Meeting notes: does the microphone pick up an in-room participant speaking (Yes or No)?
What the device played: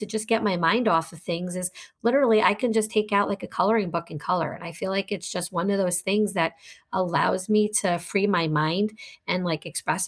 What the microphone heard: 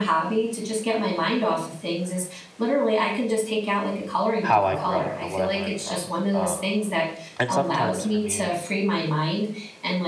Yes